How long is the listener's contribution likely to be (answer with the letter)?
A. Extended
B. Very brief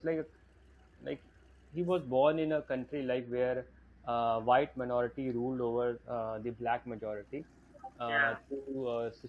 B